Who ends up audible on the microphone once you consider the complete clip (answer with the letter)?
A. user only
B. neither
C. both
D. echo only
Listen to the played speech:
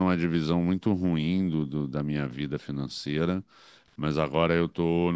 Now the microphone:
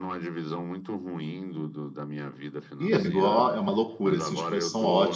C